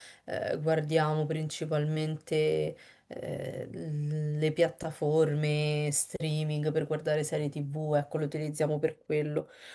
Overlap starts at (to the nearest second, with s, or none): none